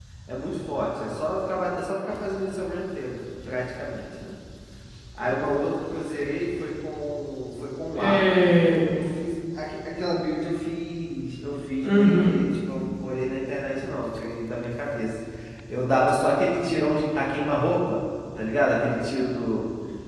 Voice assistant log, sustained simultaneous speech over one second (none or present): none